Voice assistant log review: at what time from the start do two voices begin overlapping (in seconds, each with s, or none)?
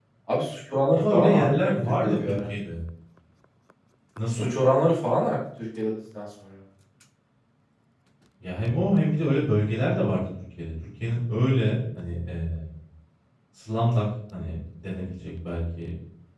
0.9 s